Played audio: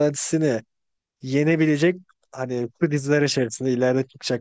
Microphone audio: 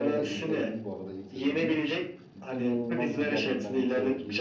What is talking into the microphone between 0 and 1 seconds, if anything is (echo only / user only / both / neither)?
both